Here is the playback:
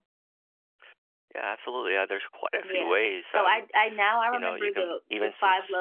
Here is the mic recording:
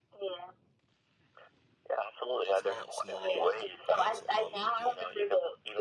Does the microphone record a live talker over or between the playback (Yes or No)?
Yes